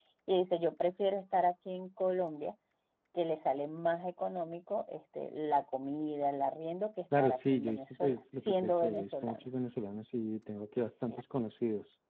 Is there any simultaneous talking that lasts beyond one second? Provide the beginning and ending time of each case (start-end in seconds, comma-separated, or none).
7.2-9.4